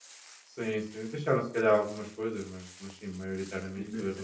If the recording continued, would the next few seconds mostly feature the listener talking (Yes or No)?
Yes